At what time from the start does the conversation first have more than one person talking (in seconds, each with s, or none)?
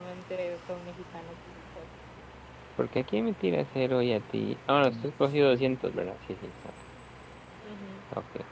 none